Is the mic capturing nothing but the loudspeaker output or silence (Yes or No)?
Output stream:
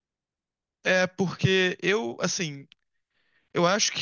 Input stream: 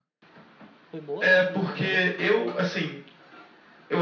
No